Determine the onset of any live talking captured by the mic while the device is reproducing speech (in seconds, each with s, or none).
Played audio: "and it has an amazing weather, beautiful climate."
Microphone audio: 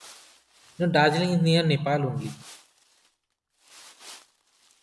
0.8 s